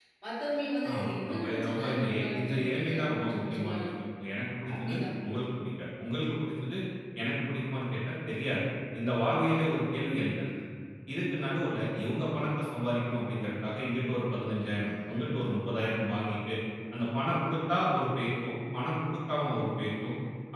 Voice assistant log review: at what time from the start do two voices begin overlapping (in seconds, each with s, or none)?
1.0 s